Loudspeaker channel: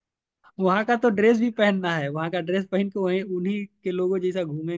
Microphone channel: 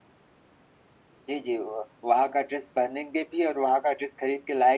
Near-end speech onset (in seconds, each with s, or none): 1.3 s